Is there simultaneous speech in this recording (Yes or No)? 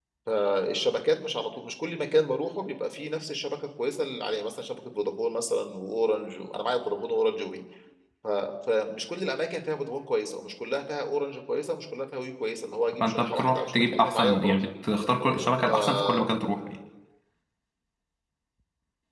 Yes